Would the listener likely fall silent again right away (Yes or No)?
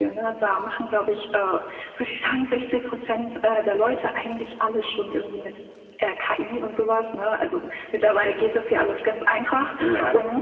Yes